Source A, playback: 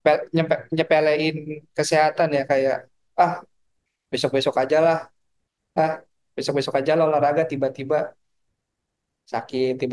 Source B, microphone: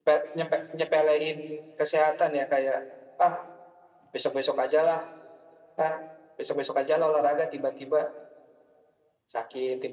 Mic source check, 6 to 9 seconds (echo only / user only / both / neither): echo only